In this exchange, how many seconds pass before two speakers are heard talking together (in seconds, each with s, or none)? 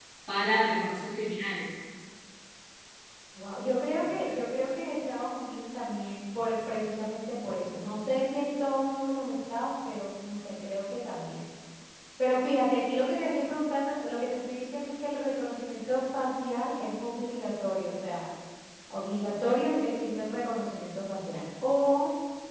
none